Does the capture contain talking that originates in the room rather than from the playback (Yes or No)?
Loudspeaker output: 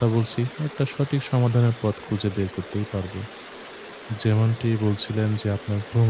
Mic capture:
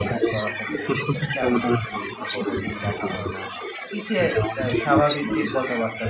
Yes